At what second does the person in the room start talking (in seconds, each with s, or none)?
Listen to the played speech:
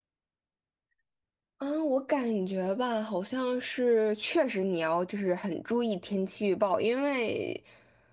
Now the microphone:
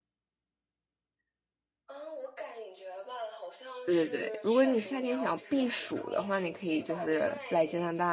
3.8 s